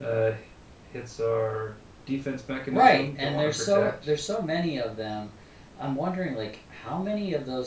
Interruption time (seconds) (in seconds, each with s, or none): 2.7 s